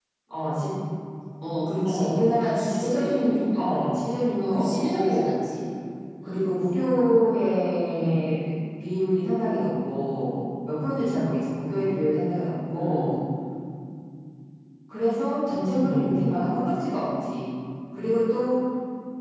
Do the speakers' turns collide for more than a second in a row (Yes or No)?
Yes